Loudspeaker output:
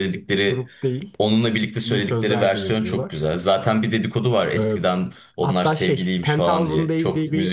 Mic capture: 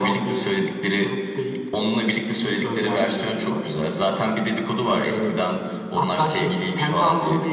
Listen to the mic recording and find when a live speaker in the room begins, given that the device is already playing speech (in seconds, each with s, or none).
none